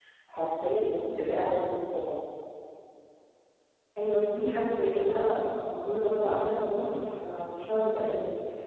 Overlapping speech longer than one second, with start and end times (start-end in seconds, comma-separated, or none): none